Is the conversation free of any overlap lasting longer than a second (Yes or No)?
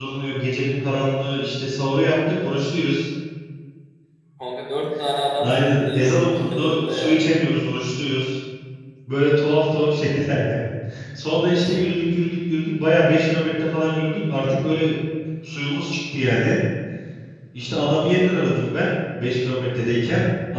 No